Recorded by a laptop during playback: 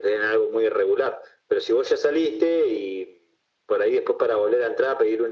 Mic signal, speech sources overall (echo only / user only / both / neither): echo only